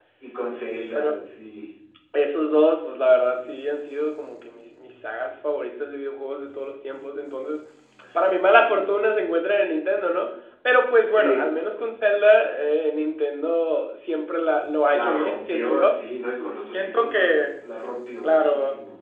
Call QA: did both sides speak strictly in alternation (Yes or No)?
No